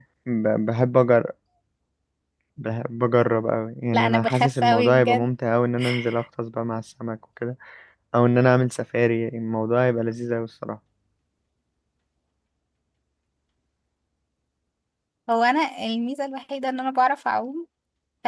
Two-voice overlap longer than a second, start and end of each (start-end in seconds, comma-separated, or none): 3.9-5.3